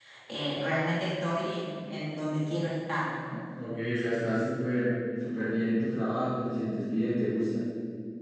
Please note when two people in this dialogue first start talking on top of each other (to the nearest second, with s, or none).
none